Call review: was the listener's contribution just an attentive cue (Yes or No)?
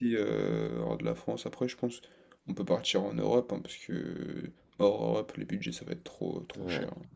No